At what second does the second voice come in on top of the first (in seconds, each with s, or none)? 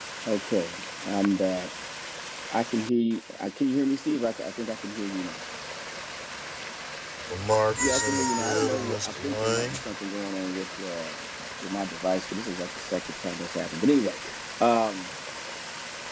7.8 s